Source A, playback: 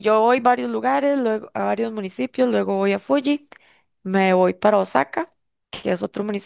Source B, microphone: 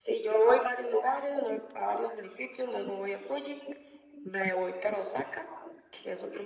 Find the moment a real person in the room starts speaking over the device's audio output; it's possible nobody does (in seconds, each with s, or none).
none